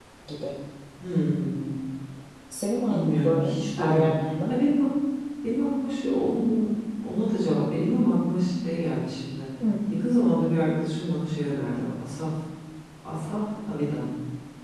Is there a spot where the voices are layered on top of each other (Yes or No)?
Yes